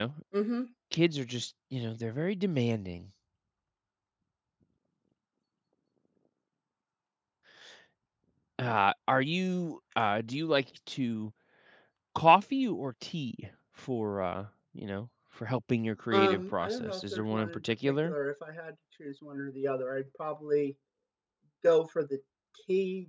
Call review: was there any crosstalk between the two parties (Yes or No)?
Yes